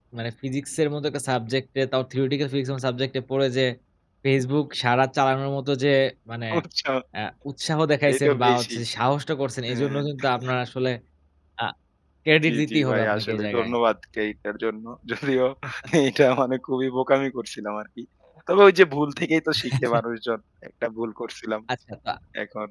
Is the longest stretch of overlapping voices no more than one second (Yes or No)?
No